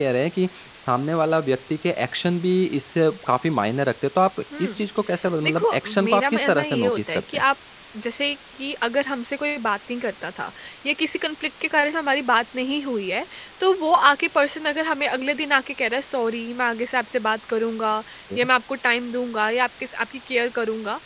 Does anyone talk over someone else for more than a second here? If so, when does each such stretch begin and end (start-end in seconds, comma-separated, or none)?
5.4-7.4